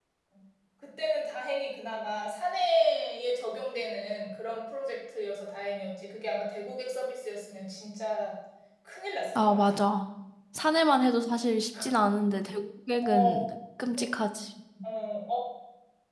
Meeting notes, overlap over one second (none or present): none